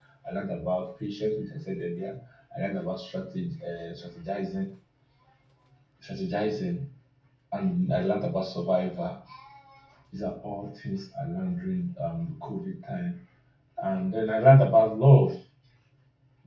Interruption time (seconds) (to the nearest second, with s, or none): none